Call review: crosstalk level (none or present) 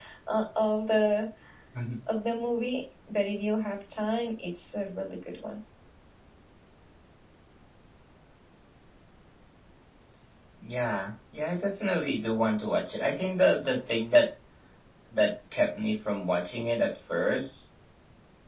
none